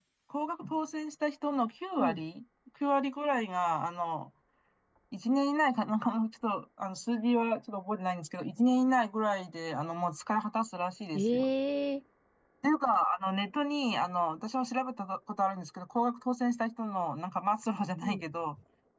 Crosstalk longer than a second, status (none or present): none